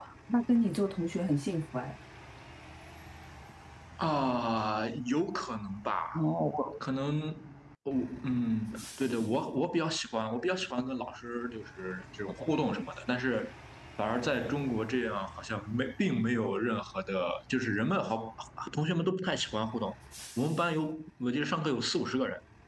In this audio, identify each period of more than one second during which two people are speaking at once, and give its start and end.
none

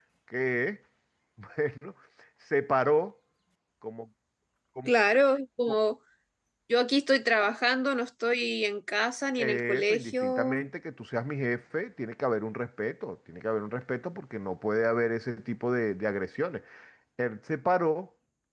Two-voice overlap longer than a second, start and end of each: 9.4-10.6

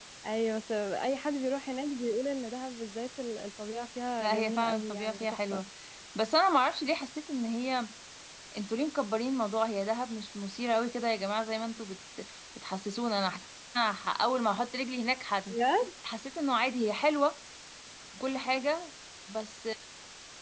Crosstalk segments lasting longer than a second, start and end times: 4.2-5.6

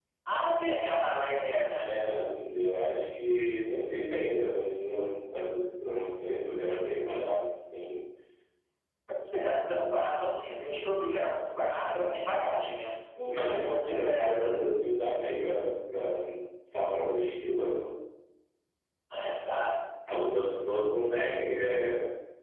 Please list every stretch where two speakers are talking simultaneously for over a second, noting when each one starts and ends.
13.4-14.7

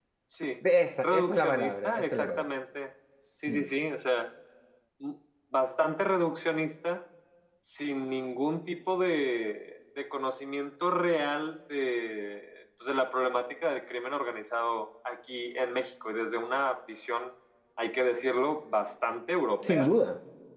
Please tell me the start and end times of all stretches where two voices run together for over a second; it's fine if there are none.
1.0-2.4

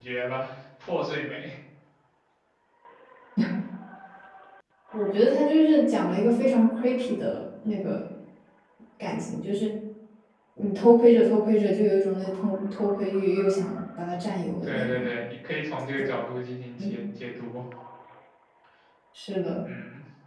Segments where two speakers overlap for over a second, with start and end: none

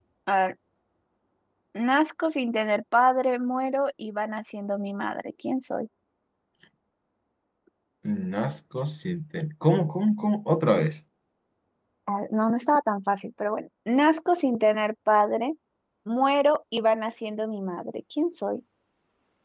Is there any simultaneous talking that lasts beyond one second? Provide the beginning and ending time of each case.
none

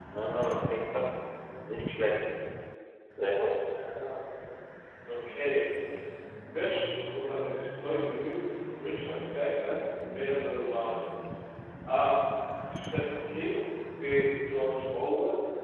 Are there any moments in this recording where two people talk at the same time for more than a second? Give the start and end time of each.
none

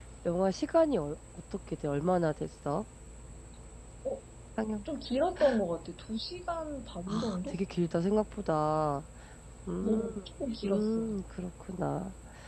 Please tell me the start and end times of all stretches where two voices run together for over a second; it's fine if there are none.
none

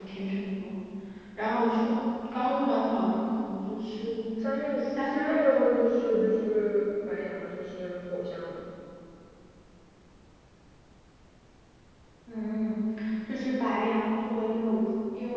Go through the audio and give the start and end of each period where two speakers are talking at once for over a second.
4.8-6.5

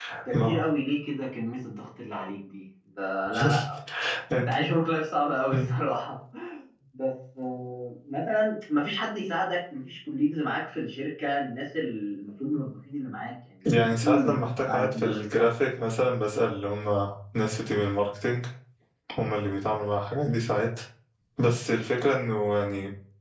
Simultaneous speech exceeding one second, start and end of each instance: 13.8-15.4

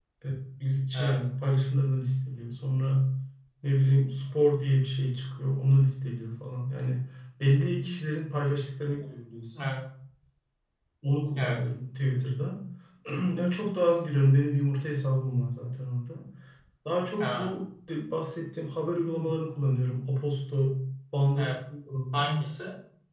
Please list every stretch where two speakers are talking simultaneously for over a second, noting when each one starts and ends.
none

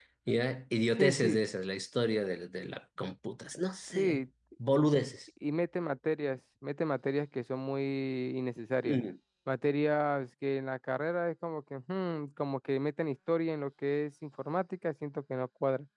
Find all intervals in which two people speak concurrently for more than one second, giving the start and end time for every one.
none

